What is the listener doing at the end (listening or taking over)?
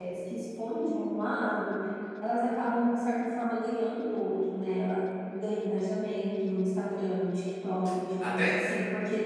listening